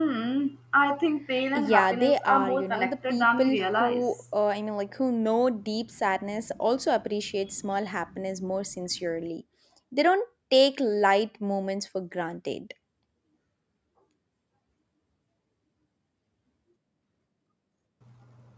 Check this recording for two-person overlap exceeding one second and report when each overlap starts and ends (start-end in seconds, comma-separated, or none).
1.6-4.1